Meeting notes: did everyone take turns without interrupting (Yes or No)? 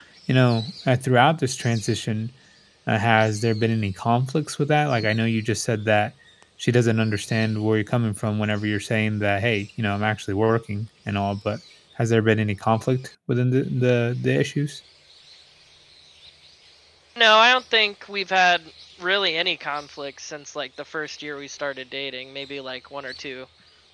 Yes